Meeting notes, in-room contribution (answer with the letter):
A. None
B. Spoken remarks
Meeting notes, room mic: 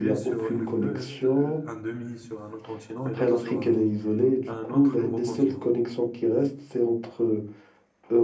B